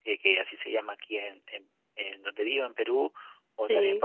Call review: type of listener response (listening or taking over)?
listening